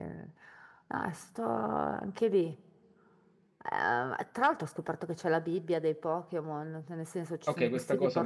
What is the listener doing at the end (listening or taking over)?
taking over